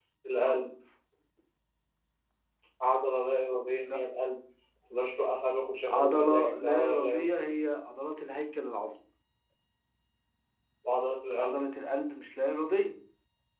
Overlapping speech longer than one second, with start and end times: 5.9-7.3

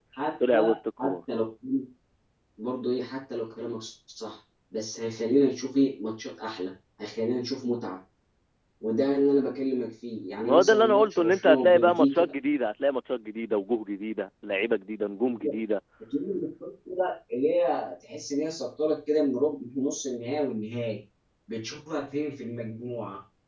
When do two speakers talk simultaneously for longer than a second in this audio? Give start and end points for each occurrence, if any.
10.4-12.2

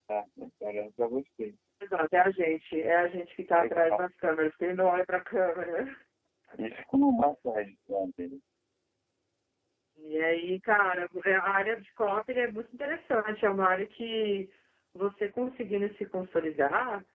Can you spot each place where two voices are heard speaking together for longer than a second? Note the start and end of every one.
none

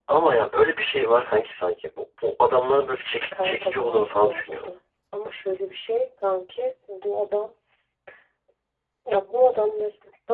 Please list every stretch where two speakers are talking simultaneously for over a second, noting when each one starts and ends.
3.3-4.7

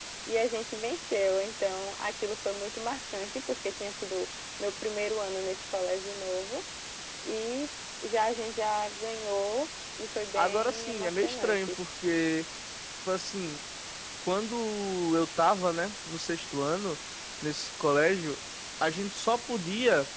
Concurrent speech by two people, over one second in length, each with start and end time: 10.3-11.7

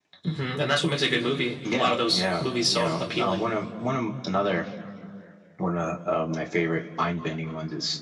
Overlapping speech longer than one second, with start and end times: 1.7-3.4

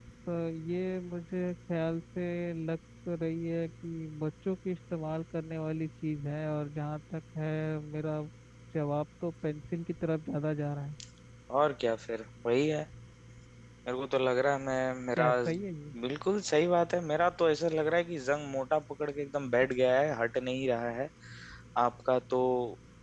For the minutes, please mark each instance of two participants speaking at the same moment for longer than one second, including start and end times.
none

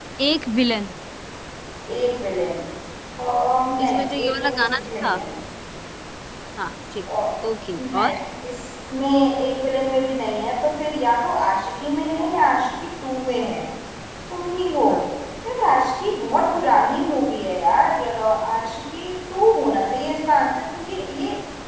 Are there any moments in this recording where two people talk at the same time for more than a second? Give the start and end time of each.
3.8-5.2

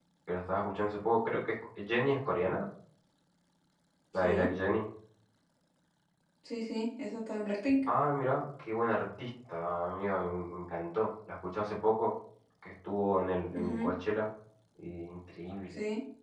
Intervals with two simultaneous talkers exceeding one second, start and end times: none

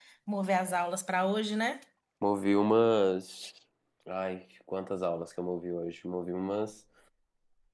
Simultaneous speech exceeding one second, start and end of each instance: none

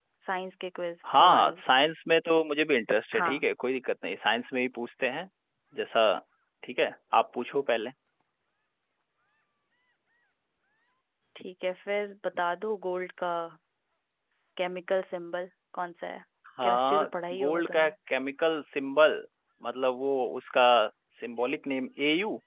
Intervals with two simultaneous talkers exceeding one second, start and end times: 16.6-17.9

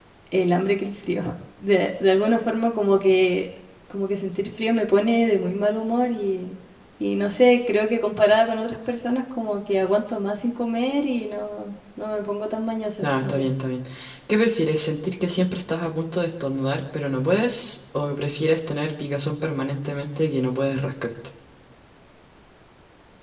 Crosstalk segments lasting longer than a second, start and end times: none

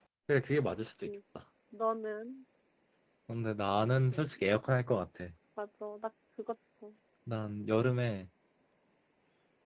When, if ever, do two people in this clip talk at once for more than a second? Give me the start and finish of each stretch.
none

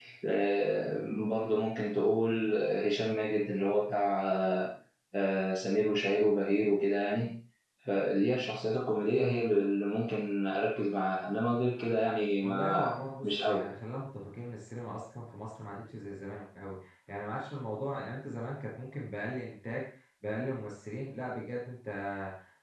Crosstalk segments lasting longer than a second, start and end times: 12.4-13.6

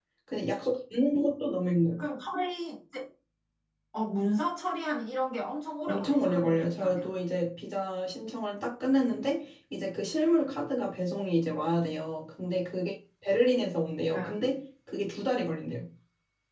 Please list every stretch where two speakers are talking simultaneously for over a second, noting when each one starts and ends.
5.9-7.1

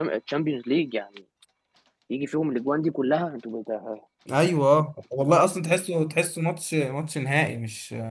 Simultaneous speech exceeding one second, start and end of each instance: none

